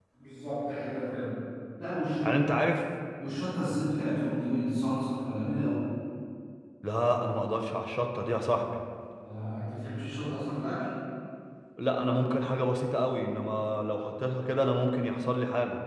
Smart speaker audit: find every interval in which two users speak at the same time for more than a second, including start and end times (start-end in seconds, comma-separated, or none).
none